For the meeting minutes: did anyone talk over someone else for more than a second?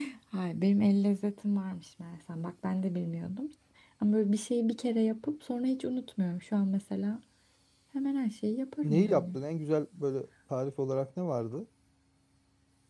No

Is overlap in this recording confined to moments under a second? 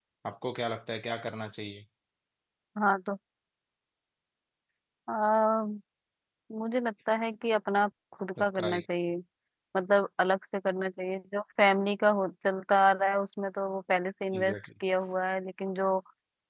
Yes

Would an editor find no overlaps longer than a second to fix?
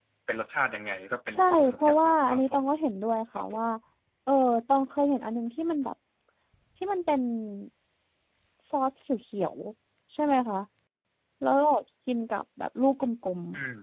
No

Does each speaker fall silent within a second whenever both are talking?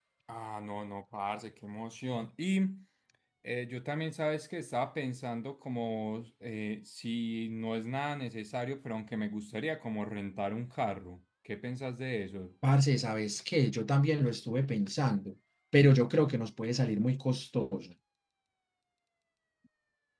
Yes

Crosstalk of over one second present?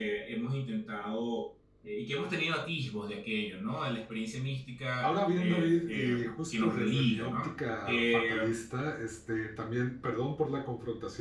Yes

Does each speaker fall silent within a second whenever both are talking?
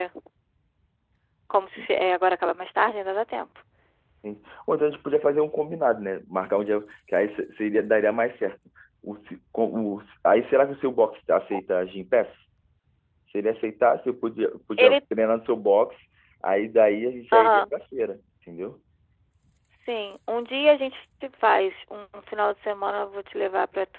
Yes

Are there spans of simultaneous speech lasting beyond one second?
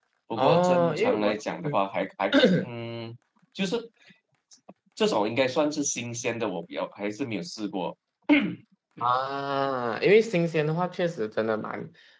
Yes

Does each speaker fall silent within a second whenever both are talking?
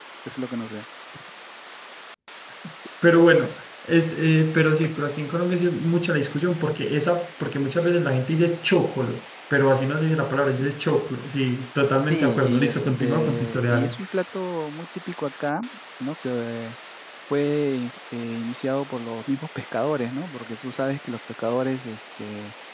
No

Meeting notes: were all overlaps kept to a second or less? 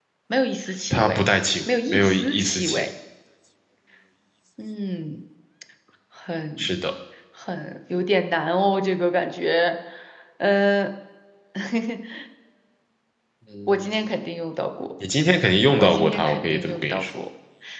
No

